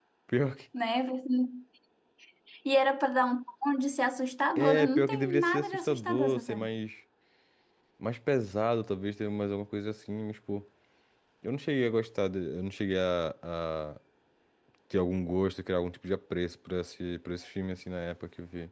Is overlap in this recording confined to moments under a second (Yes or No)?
No